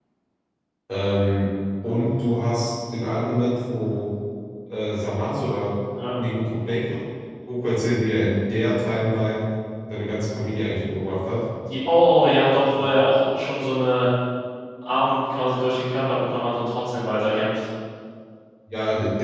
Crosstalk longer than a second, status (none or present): none